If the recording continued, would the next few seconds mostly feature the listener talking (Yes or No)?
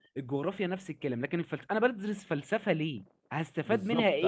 Yes